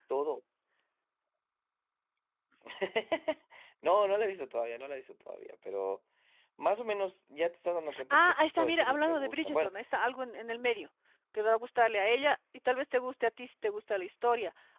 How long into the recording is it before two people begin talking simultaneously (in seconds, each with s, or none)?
7.9 s